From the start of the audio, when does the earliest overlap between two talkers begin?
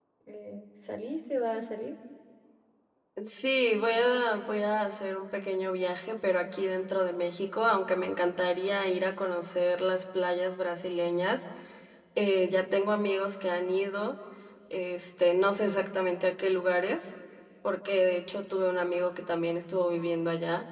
none

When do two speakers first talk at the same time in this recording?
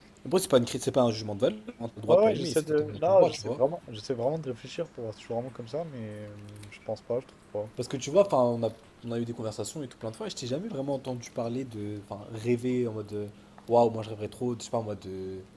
2 s

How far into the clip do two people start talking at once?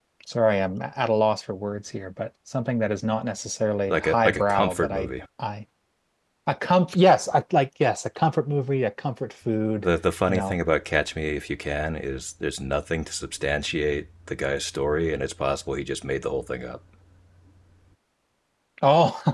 4 s

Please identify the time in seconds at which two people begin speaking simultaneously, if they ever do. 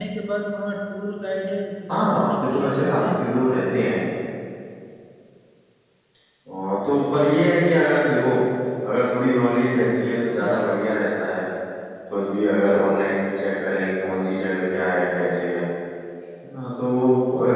2 s

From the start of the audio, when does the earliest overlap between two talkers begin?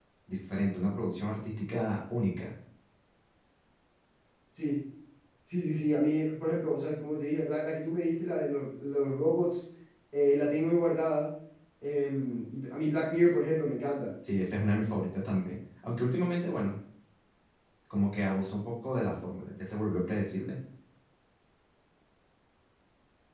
none

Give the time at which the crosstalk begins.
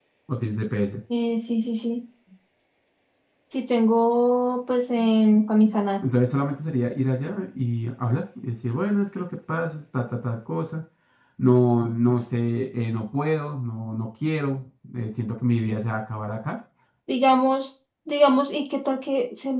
none

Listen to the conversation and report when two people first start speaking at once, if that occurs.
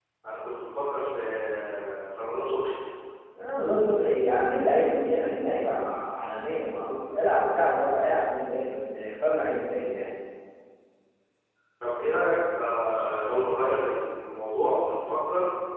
none

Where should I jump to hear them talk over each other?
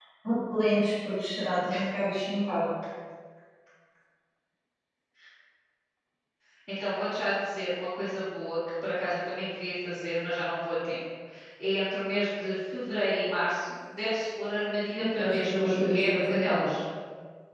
15 s

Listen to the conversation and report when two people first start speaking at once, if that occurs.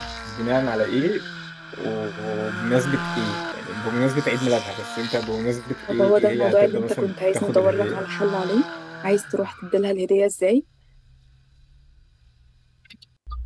6 s

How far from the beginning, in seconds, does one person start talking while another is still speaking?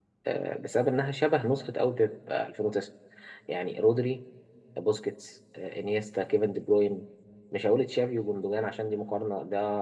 none

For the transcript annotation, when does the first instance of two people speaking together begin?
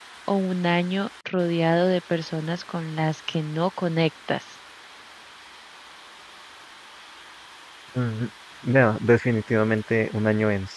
none

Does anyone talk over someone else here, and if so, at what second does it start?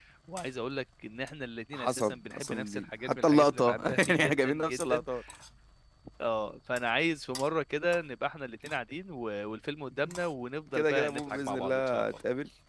2 s

